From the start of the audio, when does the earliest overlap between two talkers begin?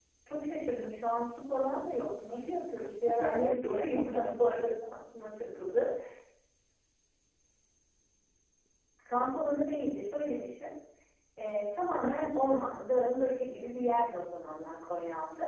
2.2 s

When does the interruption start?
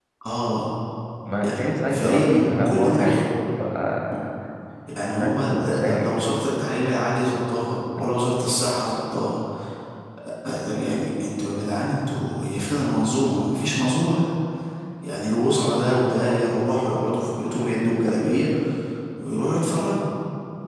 1.4 s

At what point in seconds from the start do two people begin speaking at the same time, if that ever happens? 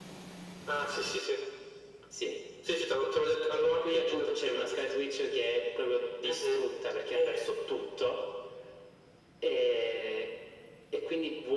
3.4 s

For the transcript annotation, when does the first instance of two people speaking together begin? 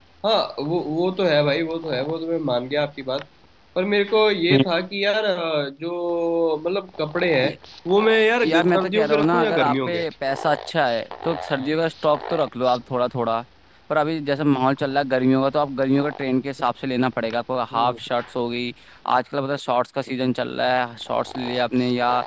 8.4 s

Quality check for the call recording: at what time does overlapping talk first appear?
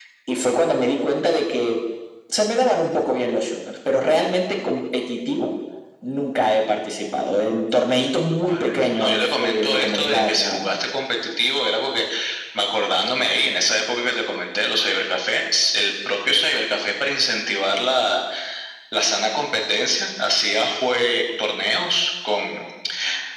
8.5 s

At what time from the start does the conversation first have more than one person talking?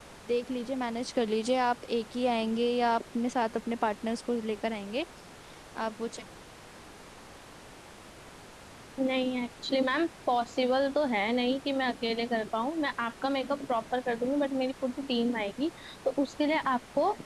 none

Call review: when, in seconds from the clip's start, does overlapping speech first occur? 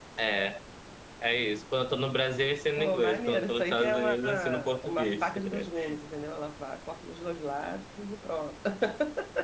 2.8 s

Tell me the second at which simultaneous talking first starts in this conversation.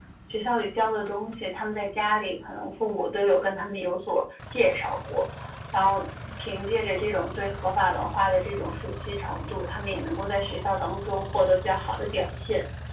none

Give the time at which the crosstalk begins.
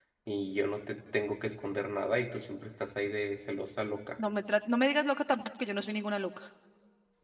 none

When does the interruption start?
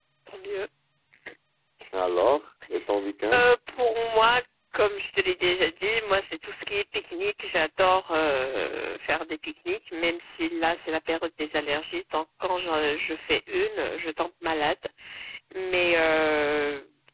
none

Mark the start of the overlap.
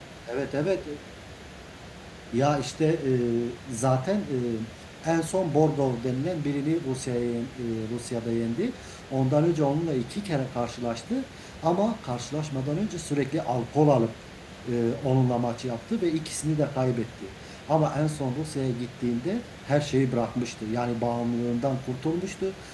none

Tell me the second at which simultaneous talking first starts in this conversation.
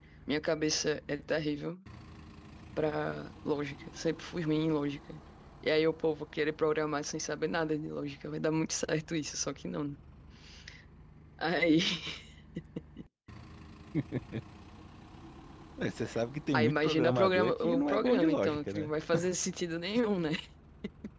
16.5 s

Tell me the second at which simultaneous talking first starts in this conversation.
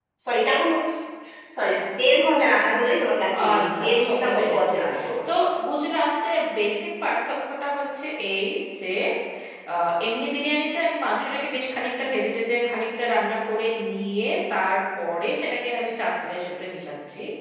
3.3 s

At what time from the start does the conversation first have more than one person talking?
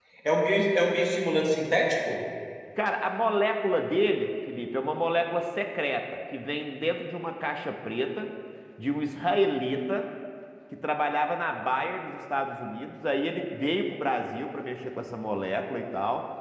none

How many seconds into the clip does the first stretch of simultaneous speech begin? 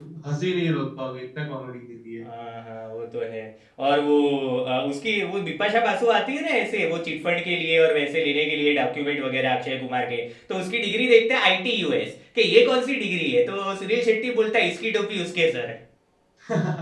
none

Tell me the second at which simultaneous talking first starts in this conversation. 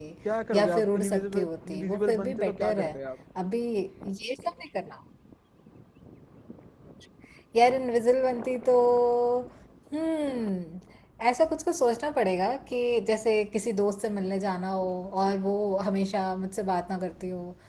0.5 s

